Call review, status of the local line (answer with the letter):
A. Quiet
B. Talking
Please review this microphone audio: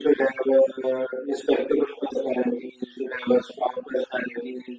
A